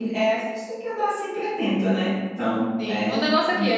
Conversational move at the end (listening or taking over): taking over